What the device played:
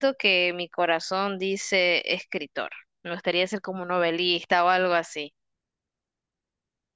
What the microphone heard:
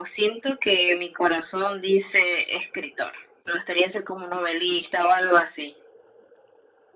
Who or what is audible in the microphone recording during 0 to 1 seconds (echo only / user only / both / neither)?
echo only